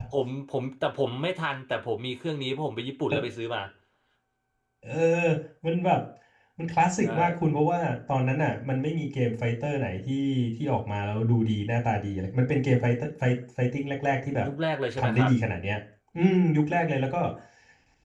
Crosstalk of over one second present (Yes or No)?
No